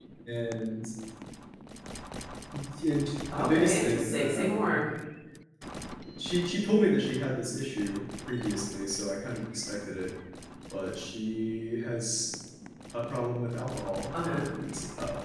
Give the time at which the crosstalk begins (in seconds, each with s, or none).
3.3 s